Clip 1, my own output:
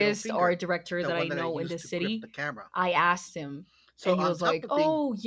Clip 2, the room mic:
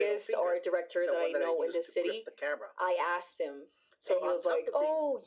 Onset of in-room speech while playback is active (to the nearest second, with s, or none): none